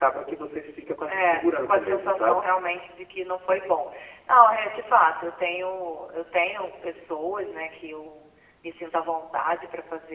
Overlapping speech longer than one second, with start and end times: 1.1-2.4

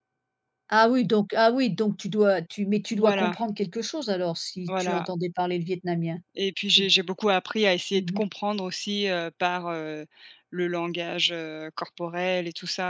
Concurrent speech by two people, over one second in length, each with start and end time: none

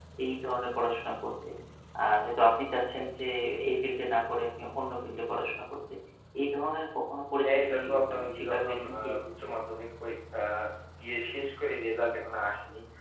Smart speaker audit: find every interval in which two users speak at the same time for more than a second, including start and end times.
7.4-9.1

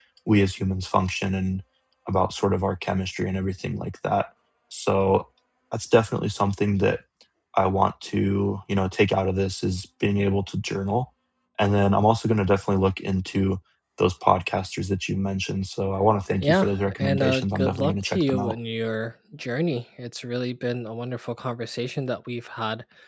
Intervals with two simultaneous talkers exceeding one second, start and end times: 16.4-18.6

